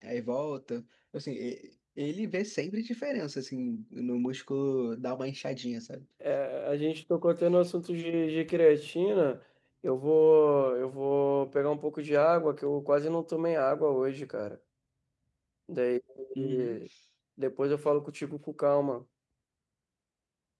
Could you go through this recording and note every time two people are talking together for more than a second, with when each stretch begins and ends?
none

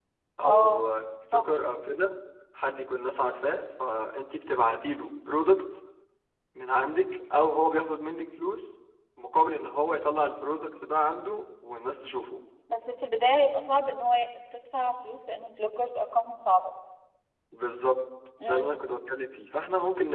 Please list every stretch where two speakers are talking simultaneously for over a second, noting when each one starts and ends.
none

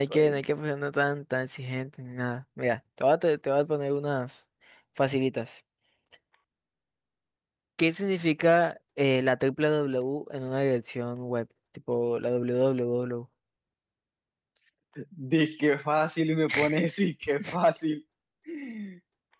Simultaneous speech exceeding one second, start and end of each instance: none

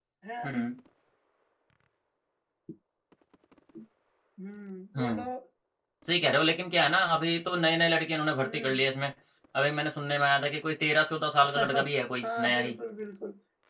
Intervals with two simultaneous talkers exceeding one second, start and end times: 11.4-12.7

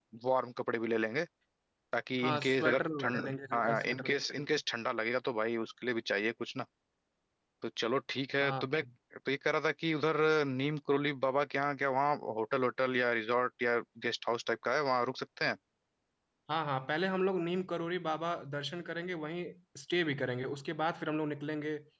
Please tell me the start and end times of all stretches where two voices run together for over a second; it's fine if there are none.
2.2-4.1

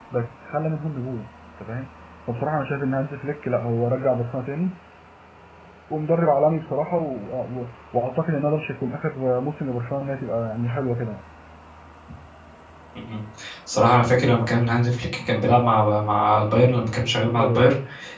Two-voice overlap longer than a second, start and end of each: none

